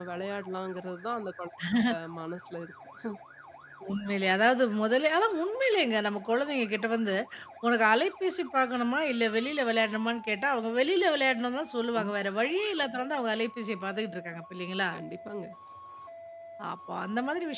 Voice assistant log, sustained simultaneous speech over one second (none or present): none